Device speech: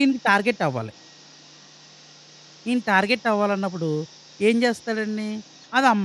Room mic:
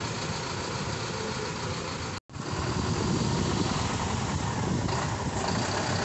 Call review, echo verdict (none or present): none